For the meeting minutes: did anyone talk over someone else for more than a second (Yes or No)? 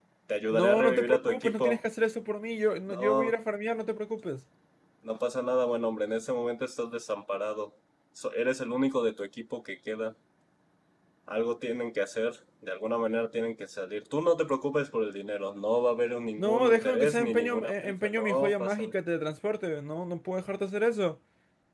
Yes